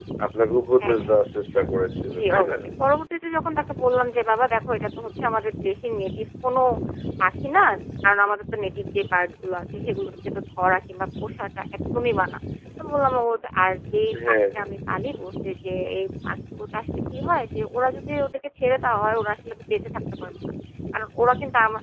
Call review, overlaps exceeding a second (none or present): none